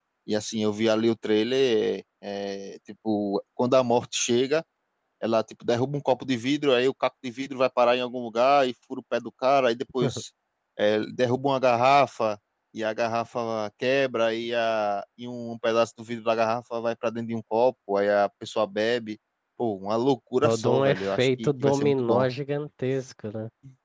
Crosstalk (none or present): present